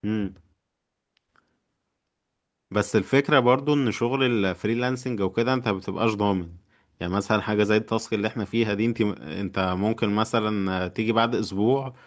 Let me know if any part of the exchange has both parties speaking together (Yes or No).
No